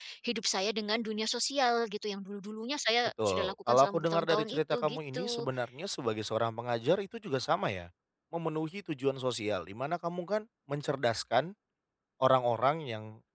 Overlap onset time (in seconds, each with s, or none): 3.2 s